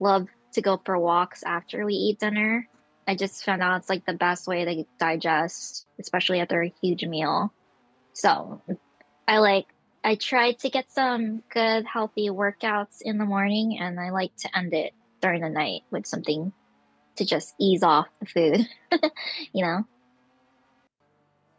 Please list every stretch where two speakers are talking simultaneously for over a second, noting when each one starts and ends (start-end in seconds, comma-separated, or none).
none